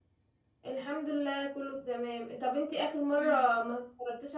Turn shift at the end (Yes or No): No